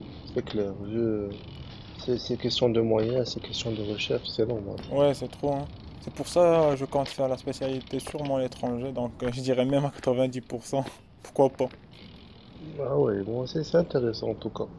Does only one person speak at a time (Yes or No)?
Yes